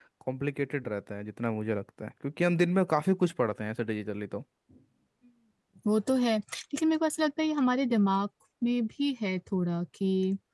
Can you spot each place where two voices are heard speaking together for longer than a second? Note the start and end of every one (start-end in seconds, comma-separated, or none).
none